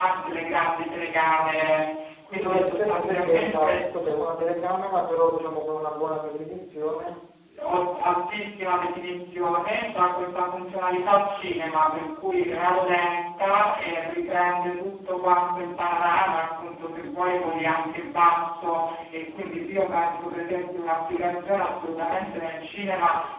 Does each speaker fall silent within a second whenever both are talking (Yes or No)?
No